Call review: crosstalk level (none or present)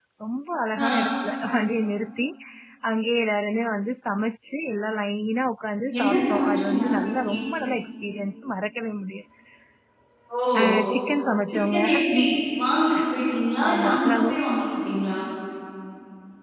present